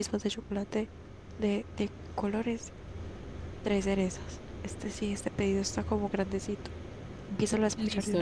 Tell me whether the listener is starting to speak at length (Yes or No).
Yes